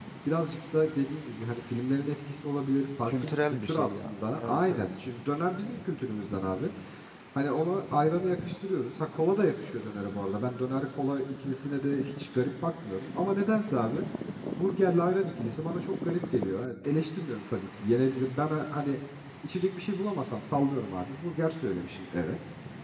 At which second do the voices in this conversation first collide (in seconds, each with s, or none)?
3.0 s